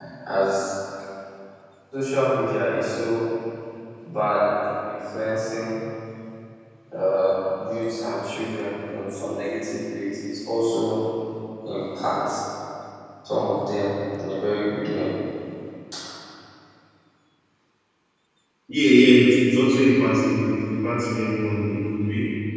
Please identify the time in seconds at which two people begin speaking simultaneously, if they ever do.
none

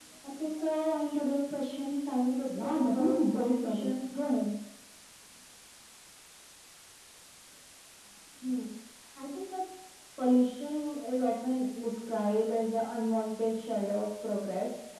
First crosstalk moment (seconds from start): 2.5 s

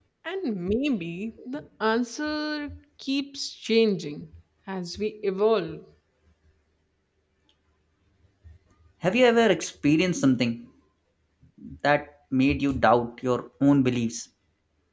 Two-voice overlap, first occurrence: none

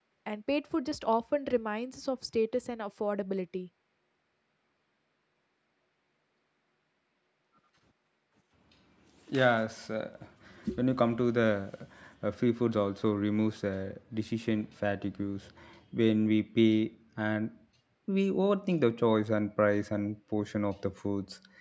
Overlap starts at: none

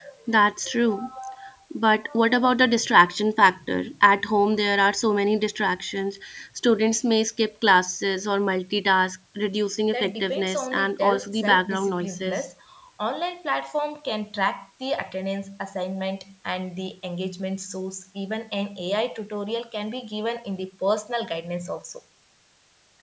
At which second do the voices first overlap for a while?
9.9 s

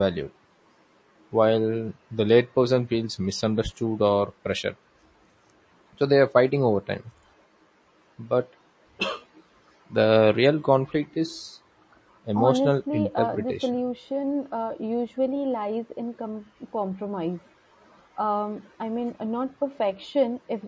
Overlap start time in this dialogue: 12.4 s

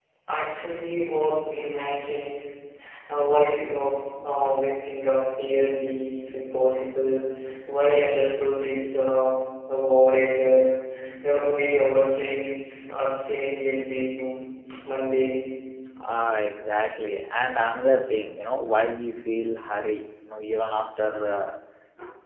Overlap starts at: none

